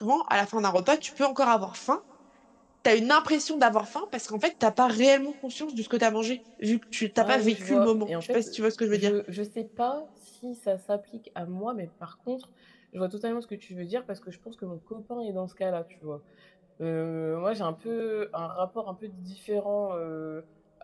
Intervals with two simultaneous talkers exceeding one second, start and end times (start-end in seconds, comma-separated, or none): 7.2-8.5